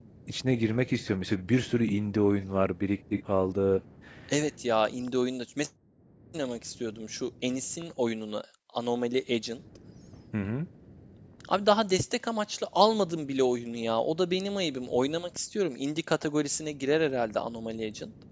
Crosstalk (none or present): none